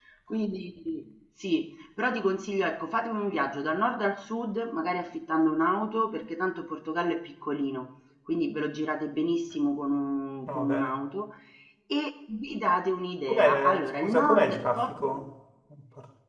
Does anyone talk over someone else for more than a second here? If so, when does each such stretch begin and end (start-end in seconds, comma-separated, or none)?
13.3-15.1